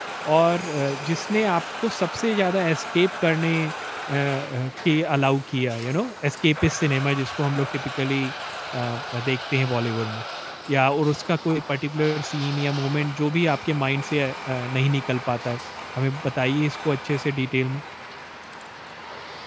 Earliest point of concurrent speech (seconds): none

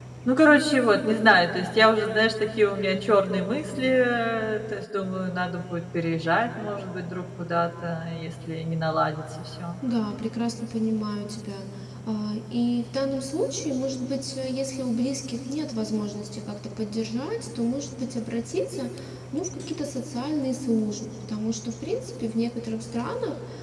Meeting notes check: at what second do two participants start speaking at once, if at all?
none

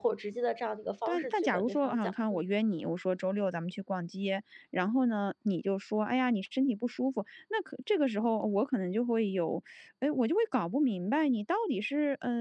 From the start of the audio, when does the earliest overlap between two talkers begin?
1 s

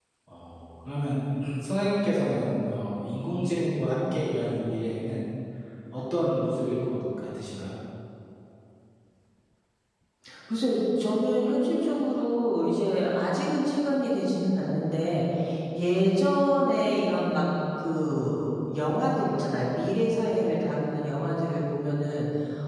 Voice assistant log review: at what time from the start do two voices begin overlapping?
none

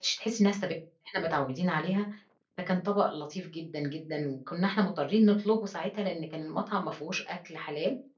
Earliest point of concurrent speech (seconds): none

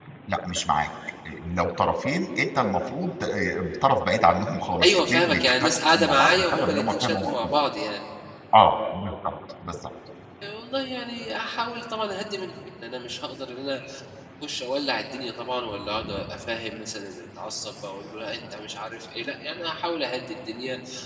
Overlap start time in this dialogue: 5 s

